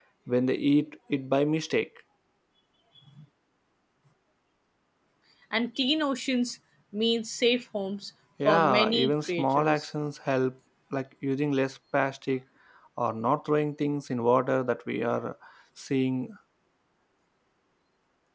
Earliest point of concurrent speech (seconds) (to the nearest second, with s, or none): 8 s